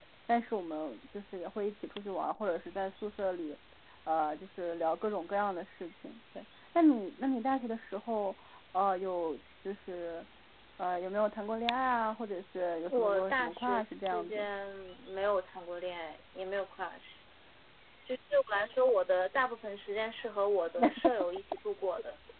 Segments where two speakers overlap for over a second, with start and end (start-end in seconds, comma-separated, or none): 12.9-14.5